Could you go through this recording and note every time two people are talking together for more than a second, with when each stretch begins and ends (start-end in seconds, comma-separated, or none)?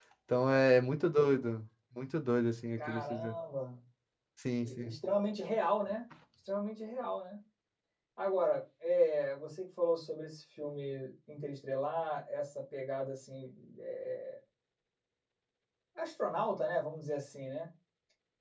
none